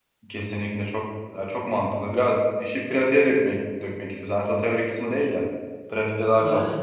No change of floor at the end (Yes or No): No